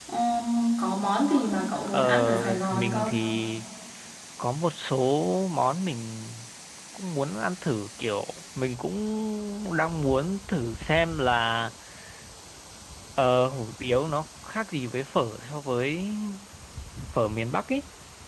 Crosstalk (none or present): present